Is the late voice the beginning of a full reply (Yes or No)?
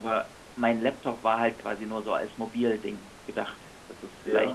No